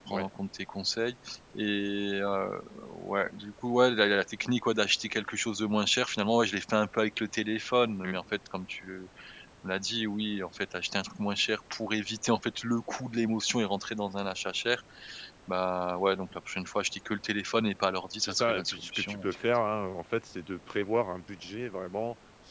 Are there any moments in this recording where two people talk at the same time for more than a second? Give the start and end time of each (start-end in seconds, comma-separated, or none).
18.2-19.4